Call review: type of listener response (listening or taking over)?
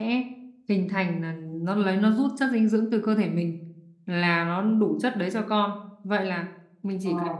listening